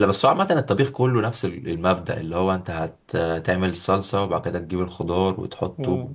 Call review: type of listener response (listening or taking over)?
taking over